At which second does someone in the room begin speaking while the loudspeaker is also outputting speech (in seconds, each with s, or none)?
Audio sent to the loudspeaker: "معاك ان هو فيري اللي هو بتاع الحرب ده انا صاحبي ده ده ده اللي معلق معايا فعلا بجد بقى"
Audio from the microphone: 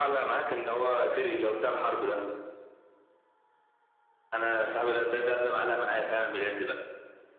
none